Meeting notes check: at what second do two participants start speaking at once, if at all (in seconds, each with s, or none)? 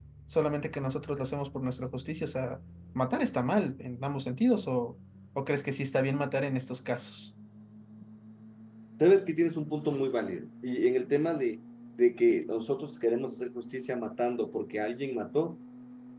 none